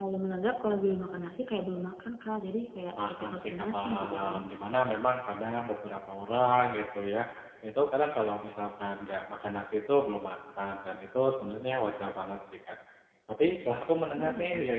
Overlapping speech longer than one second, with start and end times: 3.1-4.4

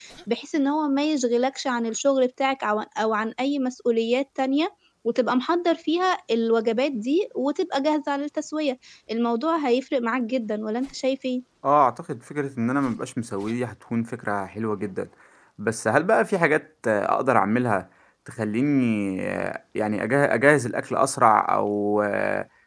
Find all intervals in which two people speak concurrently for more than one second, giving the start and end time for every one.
none

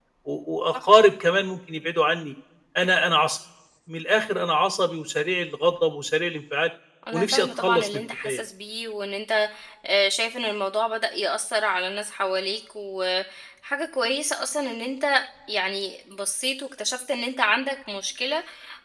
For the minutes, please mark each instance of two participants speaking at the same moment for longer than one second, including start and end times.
7.1-8.4

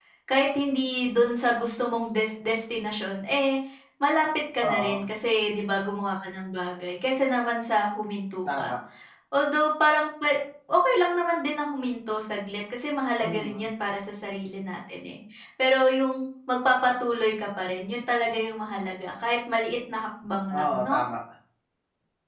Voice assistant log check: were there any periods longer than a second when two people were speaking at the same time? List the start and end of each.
none

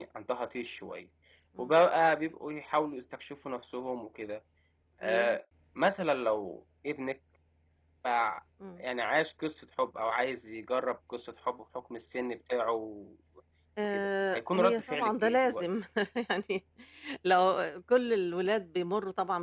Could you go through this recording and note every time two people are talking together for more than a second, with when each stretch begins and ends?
13.8-15.7

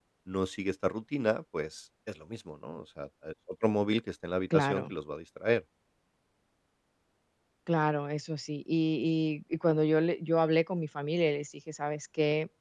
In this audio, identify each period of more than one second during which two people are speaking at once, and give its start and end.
none

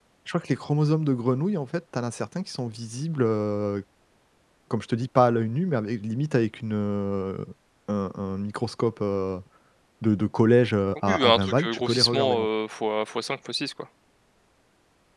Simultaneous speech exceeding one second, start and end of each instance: 11.1-12.5

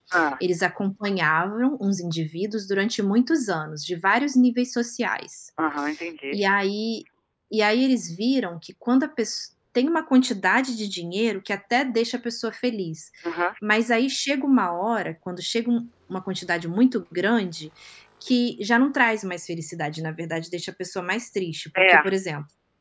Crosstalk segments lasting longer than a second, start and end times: none

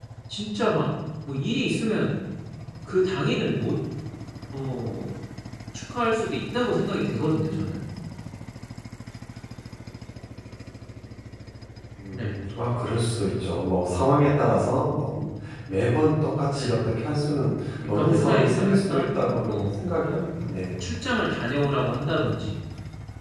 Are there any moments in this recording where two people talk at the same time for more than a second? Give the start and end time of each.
17.9-19.9

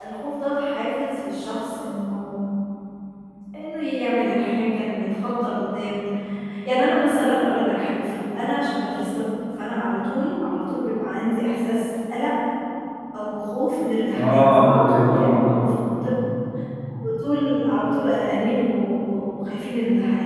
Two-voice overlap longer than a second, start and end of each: 14.2-16.1

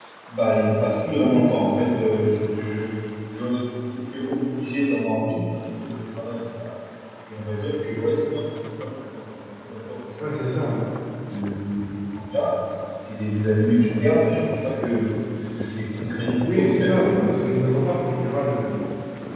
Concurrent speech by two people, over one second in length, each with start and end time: 16.4-17.9

